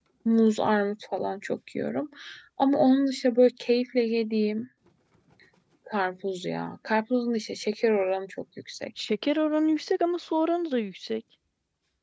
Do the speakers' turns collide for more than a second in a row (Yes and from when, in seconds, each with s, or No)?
No